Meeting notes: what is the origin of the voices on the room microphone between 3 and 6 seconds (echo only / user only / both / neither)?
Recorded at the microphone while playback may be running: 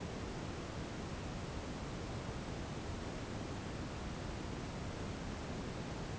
neither